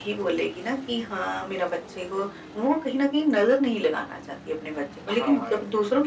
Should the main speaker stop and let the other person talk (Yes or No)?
No